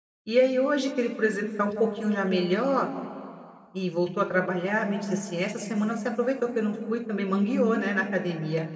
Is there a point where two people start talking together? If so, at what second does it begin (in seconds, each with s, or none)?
none